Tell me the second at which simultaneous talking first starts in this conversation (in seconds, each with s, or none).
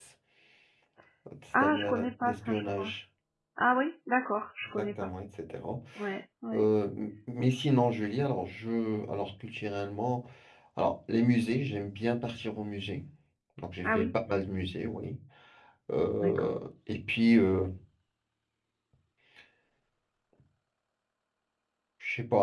1.6 s